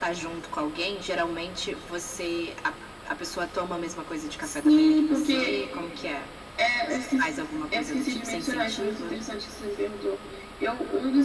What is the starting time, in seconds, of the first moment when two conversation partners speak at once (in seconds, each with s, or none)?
4.4 s